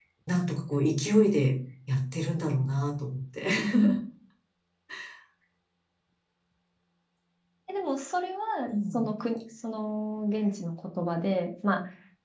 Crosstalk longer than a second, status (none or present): none